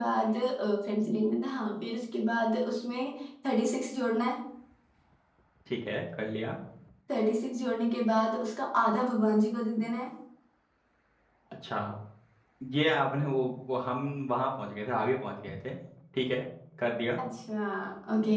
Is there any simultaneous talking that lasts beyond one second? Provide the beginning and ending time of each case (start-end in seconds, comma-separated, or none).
none